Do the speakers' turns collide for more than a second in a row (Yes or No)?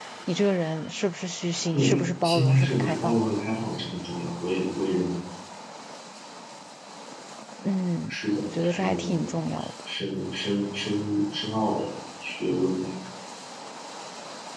Yes